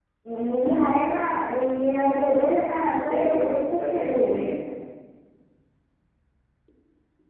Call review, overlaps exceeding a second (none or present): present